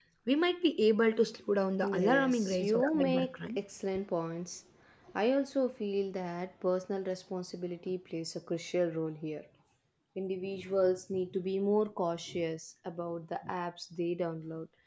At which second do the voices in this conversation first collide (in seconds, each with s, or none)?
1.8 s